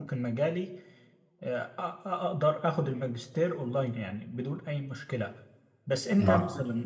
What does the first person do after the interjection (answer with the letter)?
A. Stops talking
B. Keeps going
B